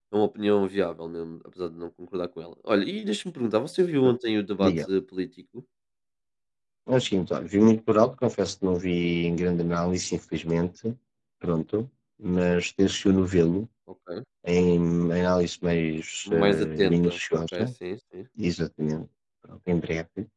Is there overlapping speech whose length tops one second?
Yes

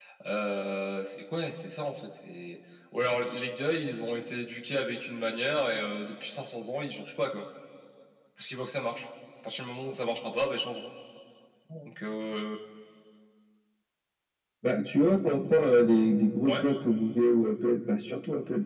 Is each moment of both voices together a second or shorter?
Yes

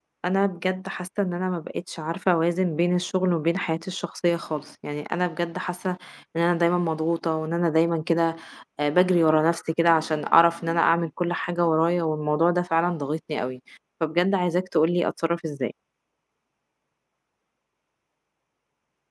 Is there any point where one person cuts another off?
No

